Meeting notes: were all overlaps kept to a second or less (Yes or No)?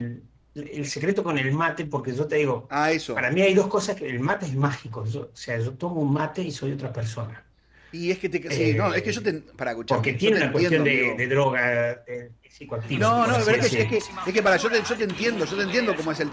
No